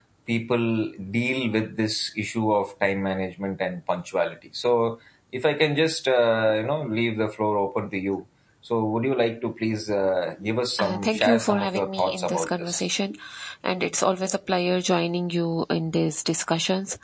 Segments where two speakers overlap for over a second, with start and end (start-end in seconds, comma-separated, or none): 10.8-12.8